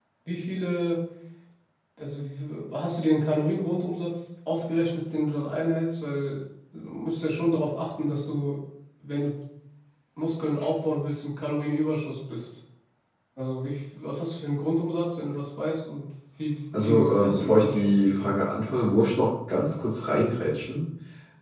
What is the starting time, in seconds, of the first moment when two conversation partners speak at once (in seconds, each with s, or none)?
16.7 s